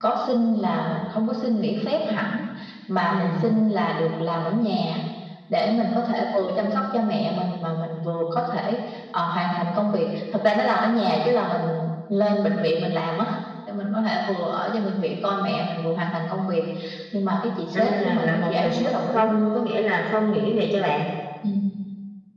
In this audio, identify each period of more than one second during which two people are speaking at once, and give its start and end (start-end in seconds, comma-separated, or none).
17.7-19.4